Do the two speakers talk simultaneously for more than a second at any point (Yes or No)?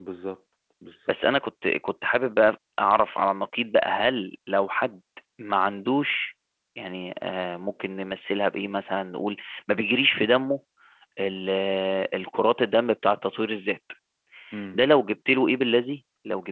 No